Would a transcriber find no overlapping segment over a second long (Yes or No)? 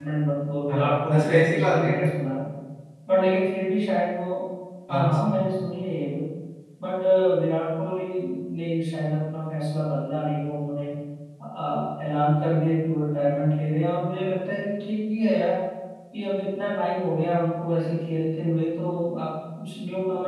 No